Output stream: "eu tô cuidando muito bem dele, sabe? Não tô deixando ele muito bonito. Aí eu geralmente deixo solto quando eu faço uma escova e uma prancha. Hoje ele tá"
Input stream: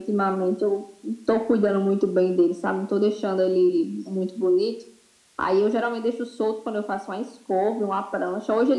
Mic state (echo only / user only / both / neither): echo only